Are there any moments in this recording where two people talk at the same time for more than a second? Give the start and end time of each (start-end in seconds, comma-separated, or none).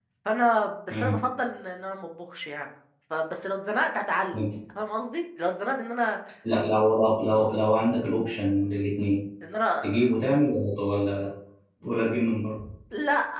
none